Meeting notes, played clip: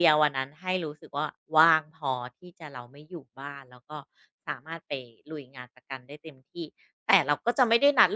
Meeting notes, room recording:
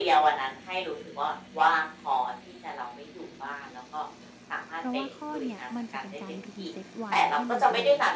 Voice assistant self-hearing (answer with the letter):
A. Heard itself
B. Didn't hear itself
A